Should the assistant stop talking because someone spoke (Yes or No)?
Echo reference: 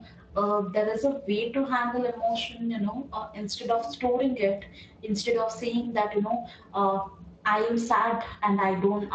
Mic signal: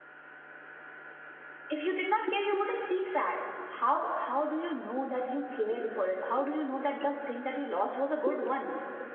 Yes